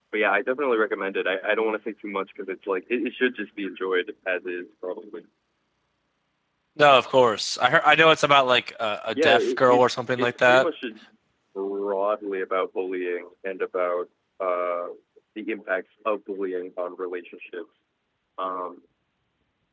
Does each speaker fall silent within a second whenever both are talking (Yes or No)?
No